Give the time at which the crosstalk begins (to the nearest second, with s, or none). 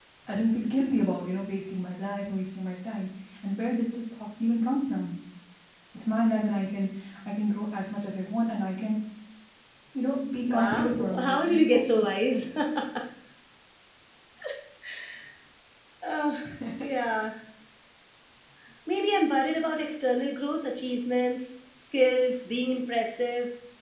11 s